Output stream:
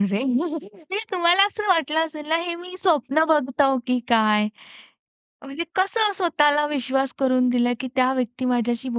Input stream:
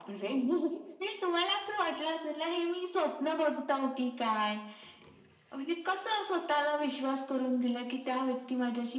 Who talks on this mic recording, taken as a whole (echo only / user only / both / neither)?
echo only